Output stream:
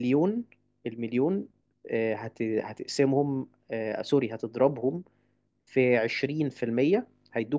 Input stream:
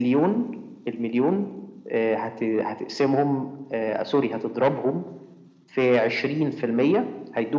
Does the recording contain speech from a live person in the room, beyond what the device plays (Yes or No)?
No